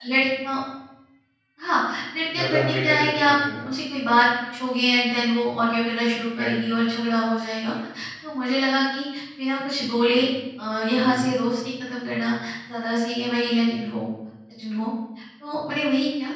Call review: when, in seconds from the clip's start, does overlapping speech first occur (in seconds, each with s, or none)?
2.4 s